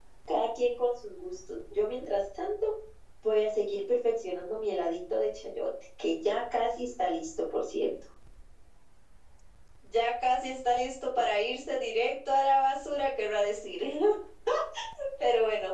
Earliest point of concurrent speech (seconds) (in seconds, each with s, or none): none